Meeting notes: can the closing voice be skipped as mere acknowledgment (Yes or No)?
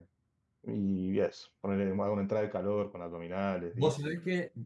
No